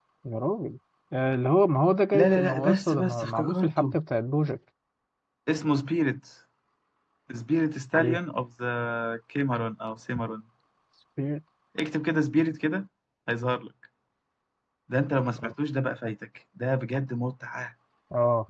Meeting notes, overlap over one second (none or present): present